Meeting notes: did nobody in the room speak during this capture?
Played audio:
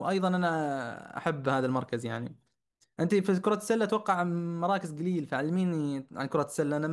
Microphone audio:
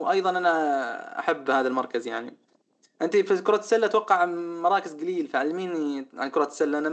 Yes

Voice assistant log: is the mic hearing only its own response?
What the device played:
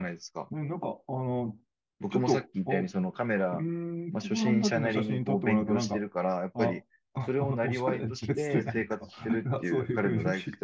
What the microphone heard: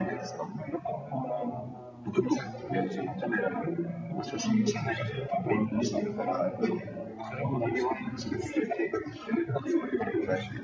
No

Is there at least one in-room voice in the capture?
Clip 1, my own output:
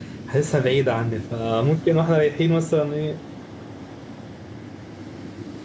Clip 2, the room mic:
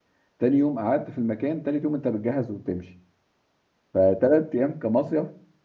Yes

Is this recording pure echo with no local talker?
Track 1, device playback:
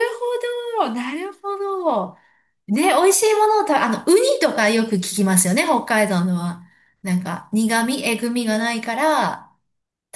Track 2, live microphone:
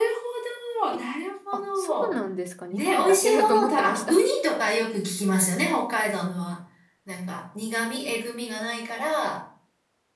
No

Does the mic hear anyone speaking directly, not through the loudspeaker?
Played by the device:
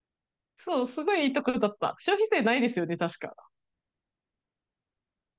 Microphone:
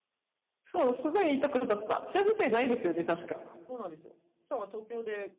Yes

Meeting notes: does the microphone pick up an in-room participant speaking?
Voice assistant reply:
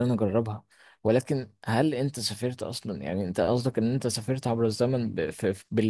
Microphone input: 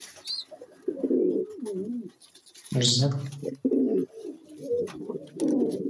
Yes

